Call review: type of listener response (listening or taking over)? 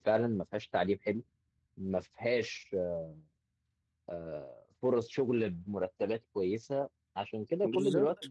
listening